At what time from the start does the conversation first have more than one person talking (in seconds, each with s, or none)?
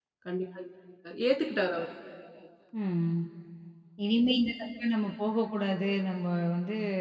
none